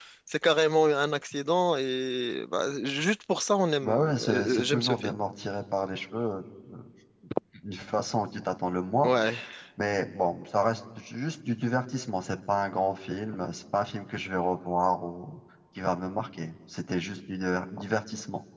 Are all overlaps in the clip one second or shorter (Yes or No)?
No